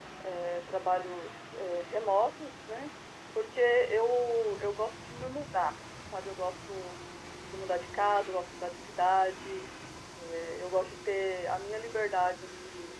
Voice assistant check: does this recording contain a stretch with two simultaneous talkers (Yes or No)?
No